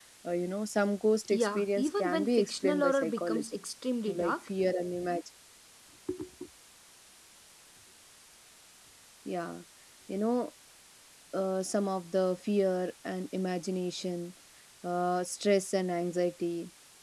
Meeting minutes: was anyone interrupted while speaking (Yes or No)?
Yes